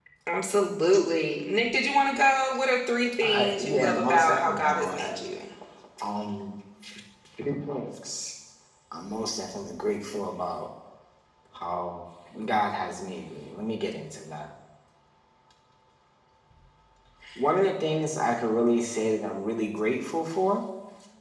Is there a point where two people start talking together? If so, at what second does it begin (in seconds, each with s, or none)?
3.2 s